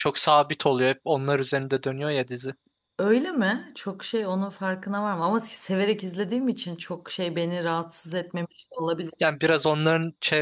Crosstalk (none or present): none